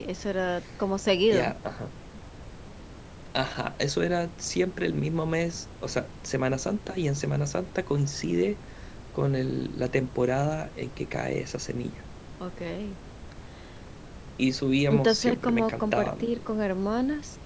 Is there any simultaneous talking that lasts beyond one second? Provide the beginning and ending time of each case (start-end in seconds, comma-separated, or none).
14.9-16.3